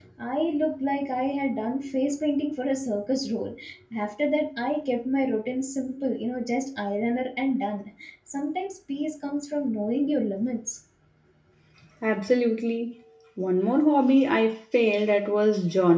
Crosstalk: none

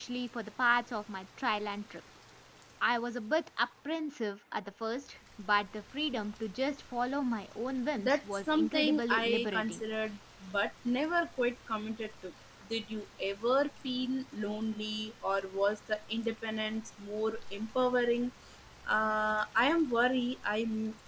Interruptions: present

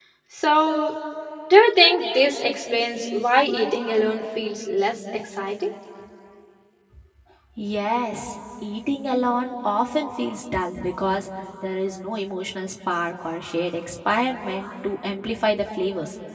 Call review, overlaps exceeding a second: none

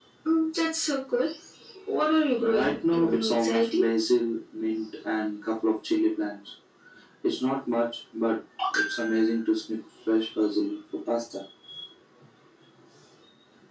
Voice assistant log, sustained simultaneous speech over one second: present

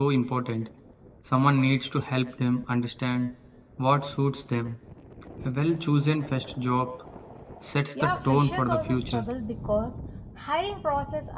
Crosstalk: present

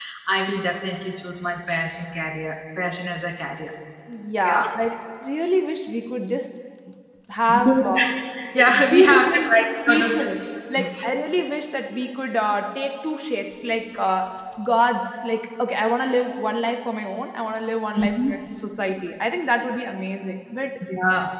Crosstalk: present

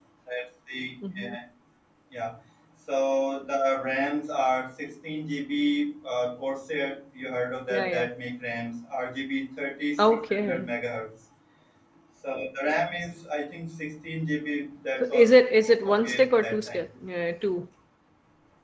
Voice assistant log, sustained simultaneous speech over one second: present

